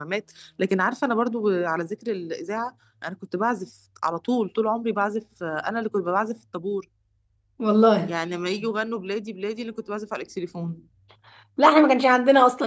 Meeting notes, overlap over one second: none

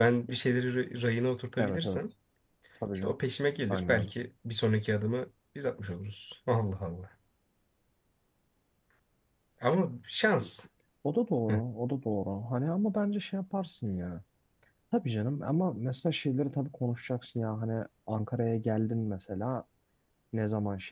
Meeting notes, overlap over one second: none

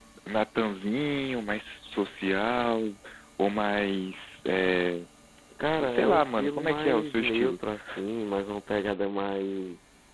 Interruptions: present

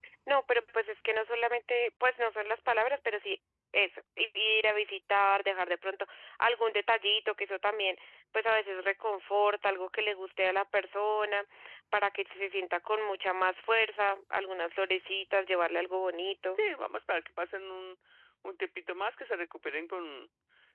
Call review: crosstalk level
none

